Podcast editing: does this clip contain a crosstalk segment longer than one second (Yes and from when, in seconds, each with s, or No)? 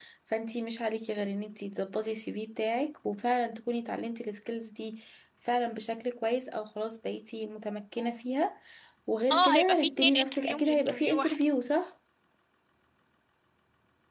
Yes, from 9.3 s